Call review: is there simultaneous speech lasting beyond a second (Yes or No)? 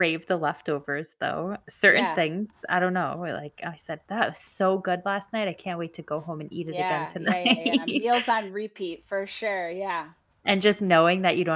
Yes